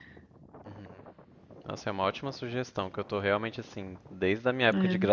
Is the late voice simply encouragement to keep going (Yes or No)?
Yes